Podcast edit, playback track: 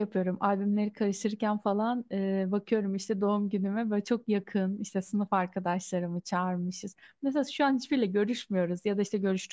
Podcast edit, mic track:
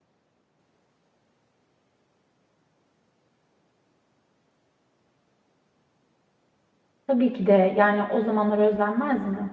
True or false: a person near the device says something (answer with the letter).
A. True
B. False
A